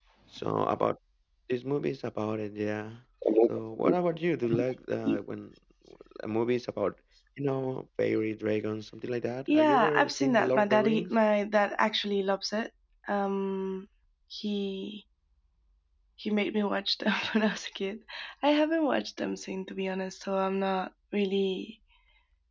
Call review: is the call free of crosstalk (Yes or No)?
No